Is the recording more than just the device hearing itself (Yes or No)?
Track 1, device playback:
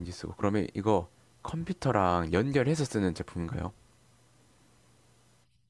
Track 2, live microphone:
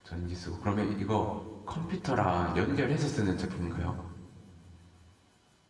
No